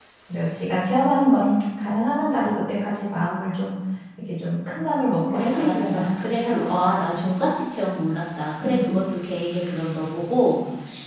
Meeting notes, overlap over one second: present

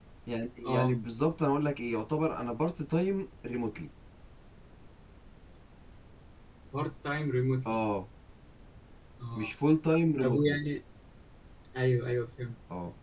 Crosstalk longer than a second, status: none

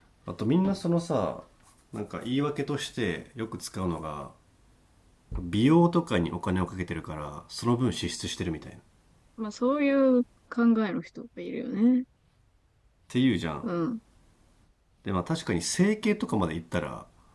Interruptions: none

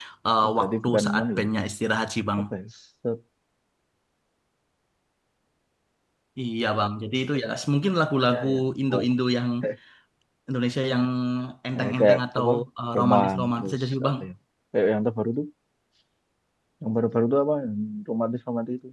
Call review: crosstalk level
present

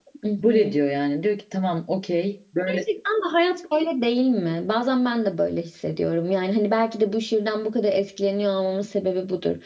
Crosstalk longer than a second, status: none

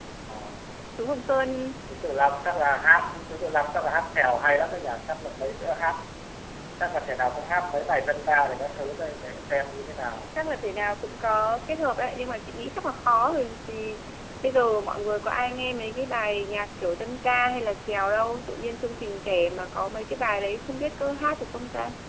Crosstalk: none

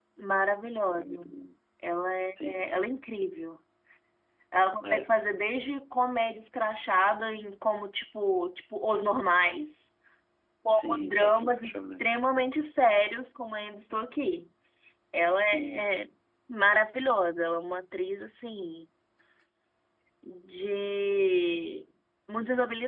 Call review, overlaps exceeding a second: present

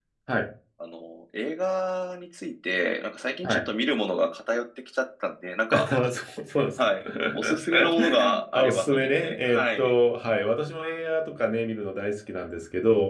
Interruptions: present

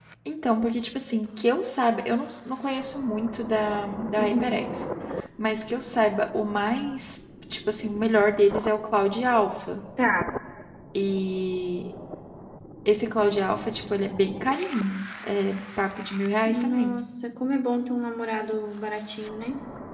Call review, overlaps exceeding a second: none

